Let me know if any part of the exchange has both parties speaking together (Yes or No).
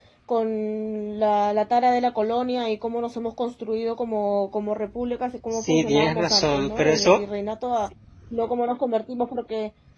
Yes